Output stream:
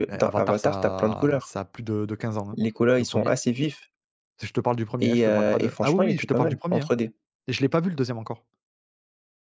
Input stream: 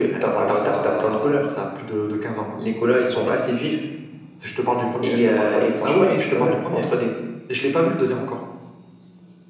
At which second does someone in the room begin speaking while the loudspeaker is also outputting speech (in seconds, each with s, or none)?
none